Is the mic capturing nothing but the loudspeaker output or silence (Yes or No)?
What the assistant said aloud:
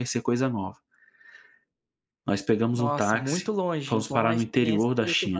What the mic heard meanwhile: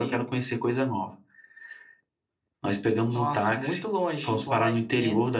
Yes